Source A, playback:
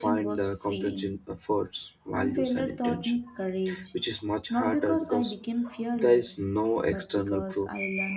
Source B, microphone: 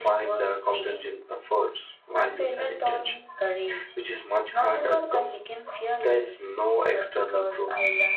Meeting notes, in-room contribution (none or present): none